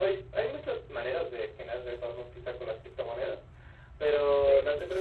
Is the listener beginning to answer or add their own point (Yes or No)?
No